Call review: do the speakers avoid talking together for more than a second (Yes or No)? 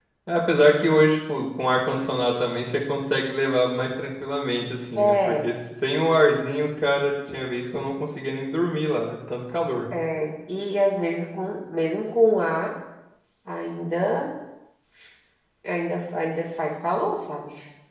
Yes